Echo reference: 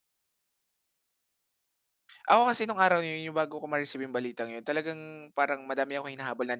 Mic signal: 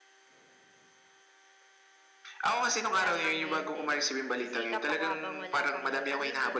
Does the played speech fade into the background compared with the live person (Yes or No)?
No